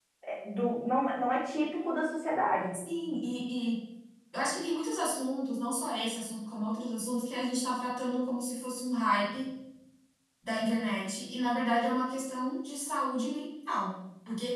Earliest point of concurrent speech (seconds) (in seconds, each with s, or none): none